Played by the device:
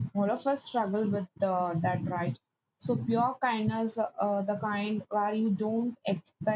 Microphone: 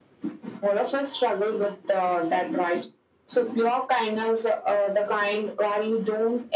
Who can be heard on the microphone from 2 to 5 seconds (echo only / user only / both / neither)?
echo only